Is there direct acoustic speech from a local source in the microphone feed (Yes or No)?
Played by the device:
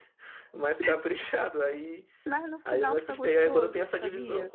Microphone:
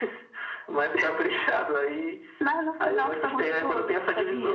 No